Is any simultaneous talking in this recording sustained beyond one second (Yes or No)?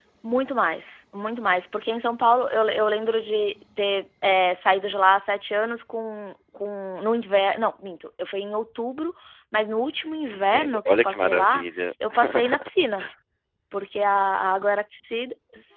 Yes